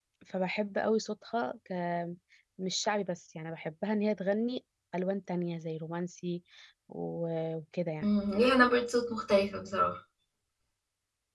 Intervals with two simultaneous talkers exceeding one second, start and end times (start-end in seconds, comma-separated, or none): none